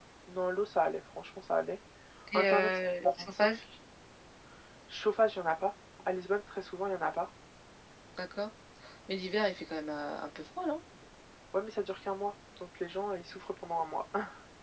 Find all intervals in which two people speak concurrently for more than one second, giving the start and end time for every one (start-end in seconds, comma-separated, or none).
2.3-3.6